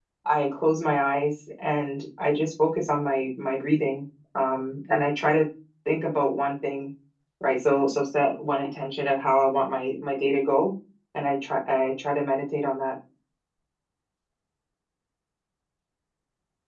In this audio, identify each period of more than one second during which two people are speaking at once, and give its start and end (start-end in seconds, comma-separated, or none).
none